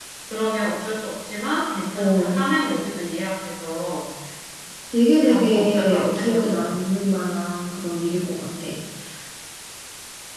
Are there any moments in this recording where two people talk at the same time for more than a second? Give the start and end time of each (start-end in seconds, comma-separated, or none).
5.2-6.8